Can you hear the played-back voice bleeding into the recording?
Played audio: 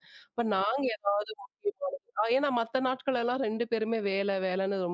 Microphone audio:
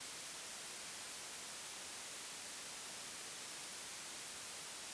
No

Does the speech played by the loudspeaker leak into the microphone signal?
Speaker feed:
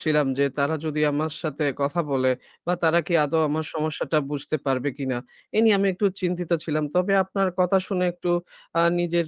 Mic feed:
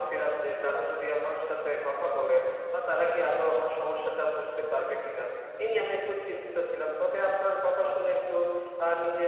Yes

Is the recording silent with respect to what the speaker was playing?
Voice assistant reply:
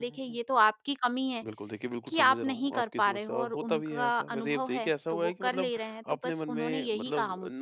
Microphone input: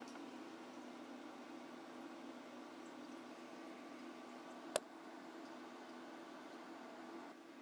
Yes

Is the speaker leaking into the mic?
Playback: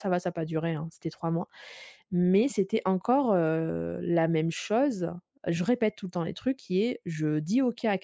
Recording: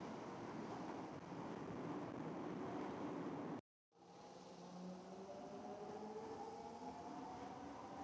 No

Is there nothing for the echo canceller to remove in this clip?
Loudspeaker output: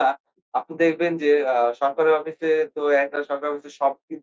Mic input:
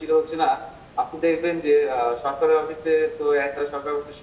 No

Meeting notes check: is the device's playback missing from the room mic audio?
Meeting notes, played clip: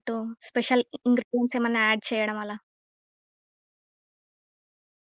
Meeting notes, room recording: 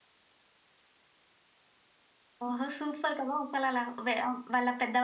Yes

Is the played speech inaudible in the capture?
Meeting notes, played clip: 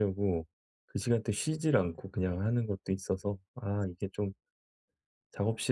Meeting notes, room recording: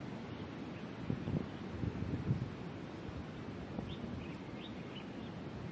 Yes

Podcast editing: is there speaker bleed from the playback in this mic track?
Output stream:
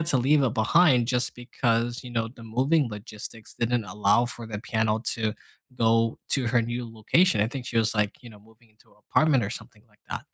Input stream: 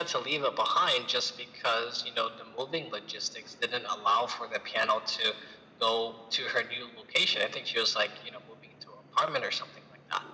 Yes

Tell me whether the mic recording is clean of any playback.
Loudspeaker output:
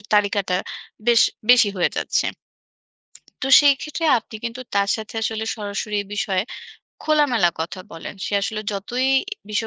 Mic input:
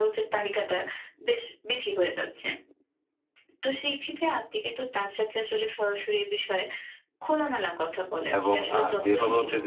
No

